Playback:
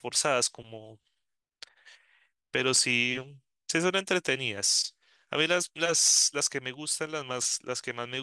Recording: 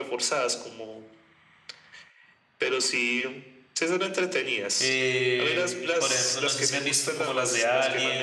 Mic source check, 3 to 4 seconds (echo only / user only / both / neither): echo only